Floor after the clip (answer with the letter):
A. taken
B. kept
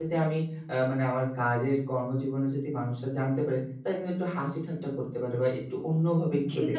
A